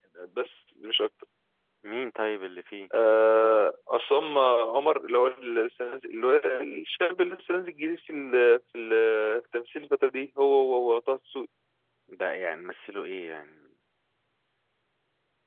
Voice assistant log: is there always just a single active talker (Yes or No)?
Yes